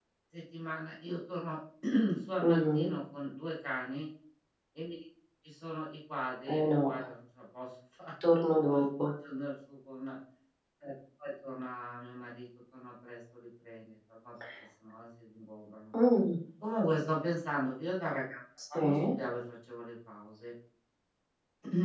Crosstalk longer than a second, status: none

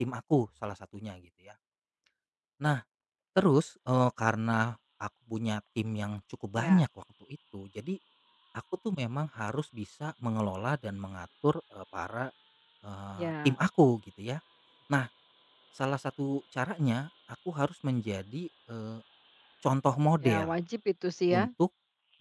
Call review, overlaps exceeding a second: none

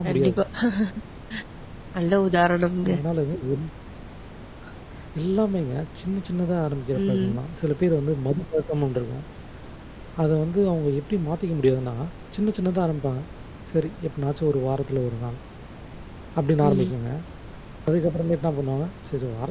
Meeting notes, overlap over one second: none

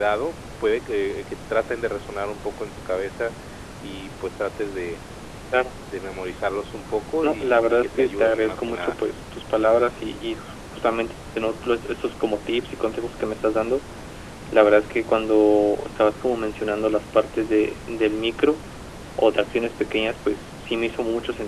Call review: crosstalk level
present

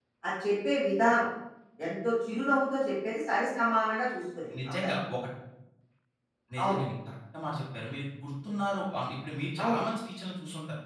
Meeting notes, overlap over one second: none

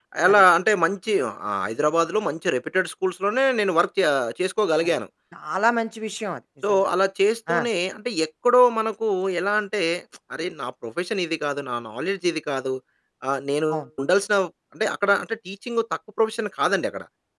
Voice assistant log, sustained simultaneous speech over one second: none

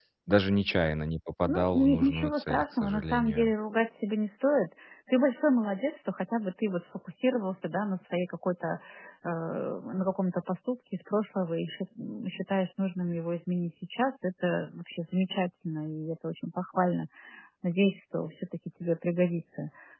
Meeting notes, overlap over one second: present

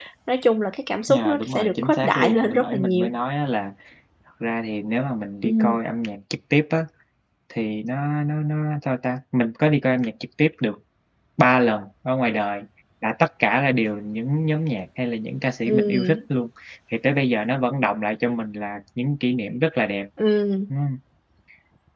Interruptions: present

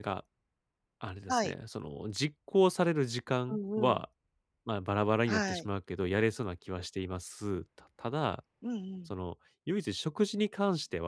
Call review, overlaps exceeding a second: none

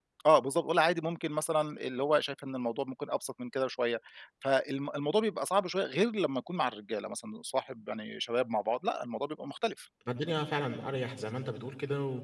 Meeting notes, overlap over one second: none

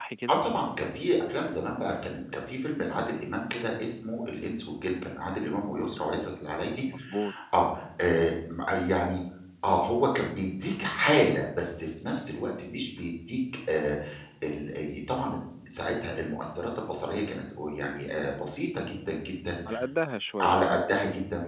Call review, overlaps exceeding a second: none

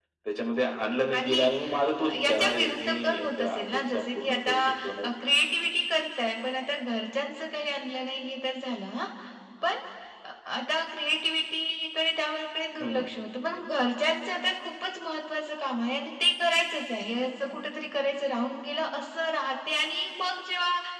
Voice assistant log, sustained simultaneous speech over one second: present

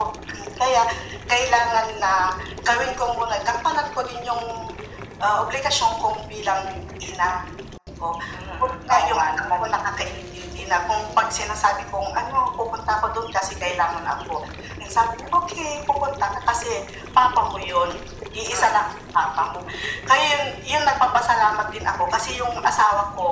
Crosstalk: present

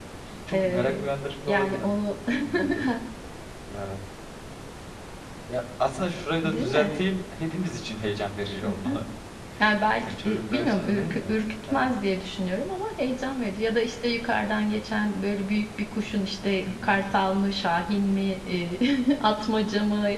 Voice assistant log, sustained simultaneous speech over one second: present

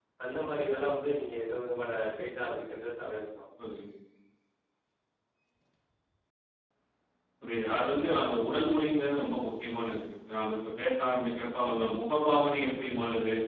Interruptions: none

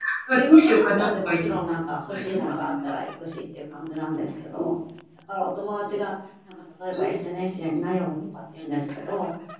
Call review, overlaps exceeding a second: present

